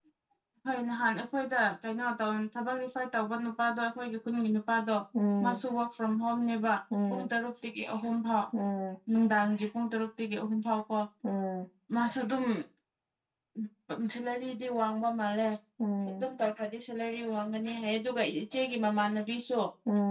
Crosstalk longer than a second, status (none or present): none